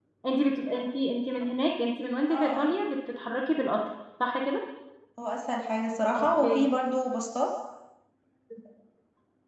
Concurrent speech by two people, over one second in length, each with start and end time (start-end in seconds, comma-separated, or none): none